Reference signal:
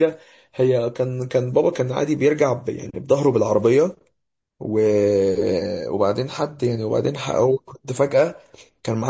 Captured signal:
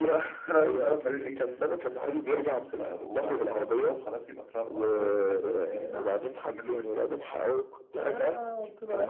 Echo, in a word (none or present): present